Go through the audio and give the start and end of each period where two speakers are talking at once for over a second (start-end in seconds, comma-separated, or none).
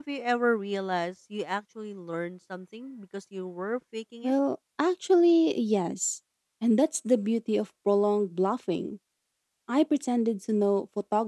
none